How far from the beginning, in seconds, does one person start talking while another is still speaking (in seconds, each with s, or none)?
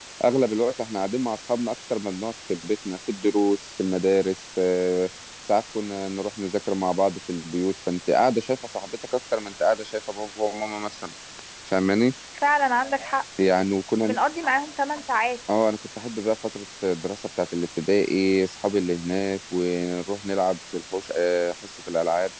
none